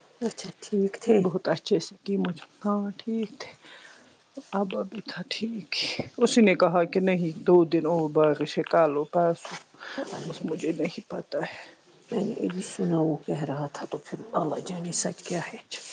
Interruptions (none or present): none